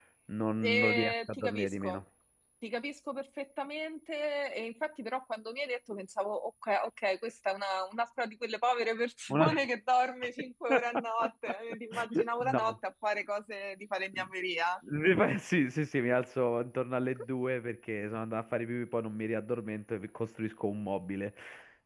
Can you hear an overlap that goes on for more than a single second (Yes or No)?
Yes